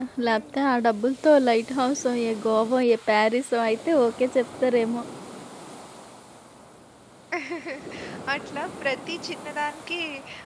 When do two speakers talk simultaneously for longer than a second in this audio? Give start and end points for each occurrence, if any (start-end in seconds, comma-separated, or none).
none